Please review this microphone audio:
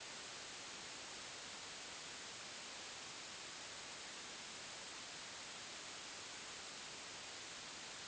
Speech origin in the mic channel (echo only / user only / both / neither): neither